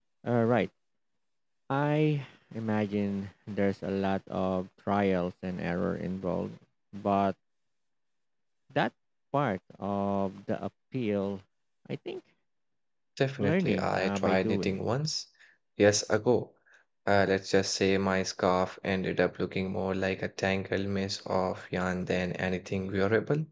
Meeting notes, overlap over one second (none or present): present